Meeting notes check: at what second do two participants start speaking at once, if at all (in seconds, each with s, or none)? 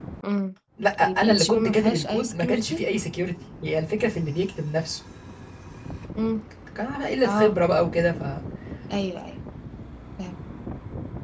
1.0 s